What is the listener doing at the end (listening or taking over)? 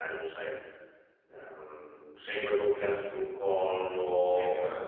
listening